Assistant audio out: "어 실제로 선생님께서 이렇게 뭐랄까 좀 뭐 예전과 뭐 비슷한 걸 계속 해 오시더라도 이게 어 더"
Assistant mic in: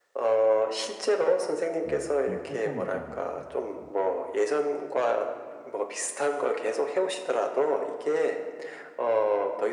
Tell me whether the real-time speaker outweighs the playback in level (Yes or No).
No